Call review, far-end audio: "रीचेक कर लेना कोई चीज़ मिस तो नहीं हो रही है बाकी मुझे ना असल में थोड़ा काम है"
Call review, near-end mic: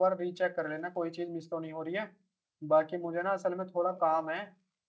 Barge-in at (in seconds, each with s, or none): none